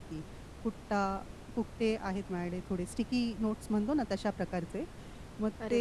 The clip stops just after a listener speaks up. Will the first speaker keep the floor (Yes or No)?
Yes